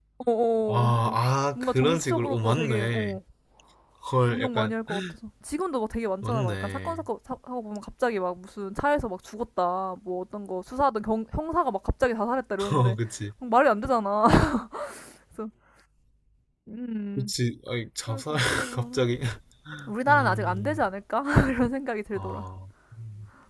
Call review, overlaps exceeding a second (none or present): present